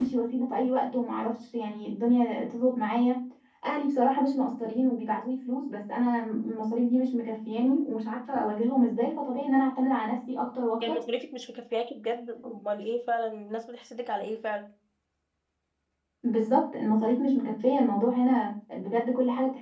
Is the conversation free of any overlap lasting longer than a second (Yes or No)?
Yes